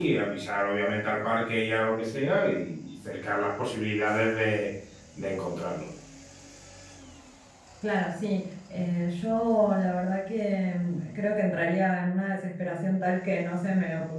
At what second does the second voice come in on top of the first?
none

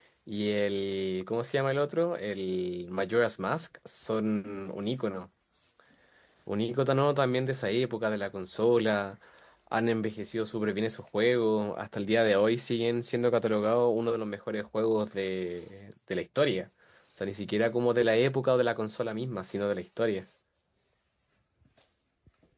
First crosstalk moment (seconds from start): none

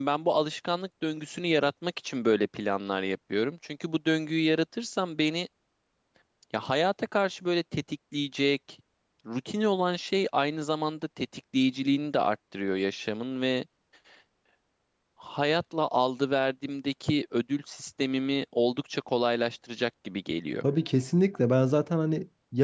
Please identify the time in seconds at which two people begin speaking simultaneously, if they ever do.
none

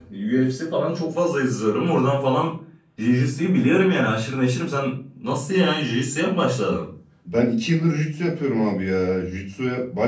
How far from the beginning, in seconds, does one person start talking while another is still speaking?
none

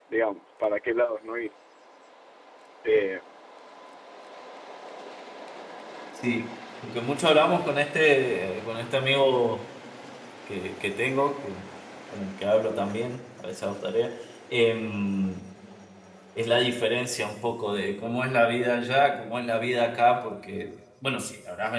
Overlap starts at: none

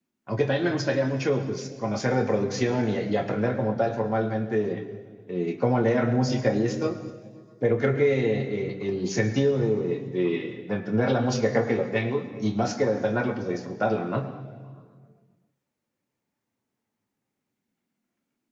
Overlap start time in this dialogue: none

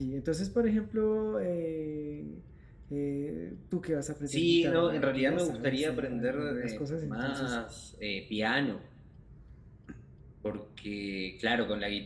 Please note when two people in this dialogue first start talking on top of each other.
4.3 s

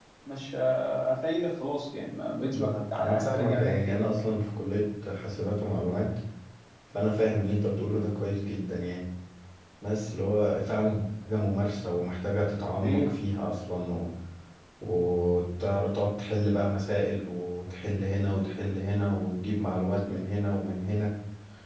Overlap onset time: 2.5 s

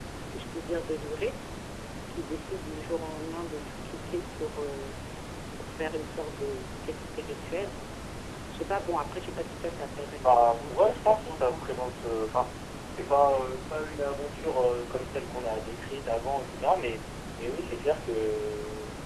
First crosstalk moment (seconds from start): 10.2 s

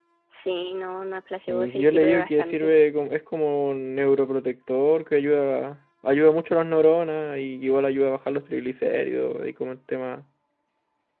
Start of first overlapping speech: 1.5 s

